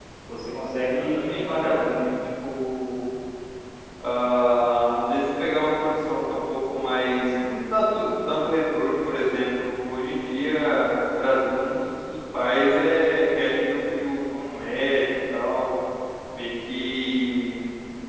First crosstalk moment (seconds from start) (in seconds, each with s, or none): 0.8 s